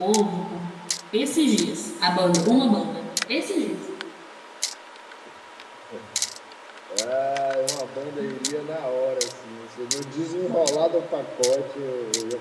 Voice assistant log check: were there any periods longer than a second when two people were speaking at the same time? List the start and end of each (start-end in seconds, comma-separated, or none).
none